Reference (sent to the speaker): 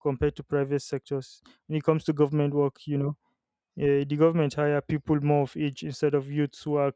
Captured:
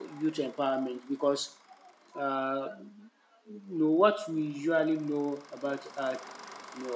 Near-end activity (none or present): present